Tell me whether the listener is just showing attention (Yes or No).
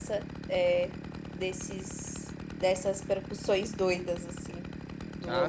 No